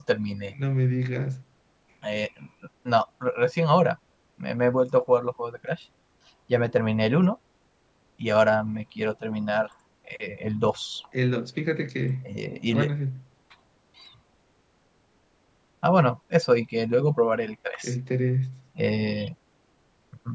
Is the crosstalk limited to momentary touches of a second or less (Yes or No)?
Yes